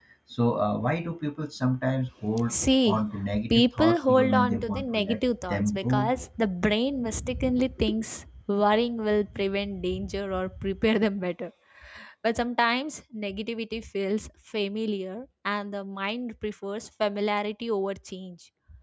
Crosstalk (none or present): present